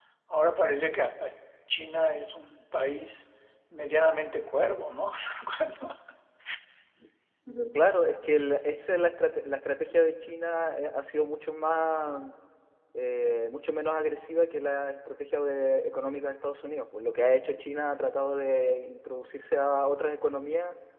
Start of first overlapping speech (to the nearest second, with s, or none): none